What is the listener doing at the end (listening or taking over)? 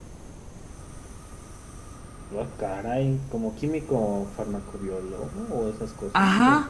taking over